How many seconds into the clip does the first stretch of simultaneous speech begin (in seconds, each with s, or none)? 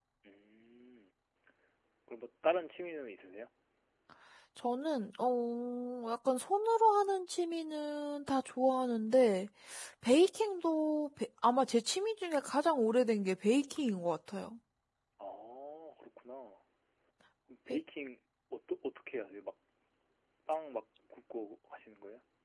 none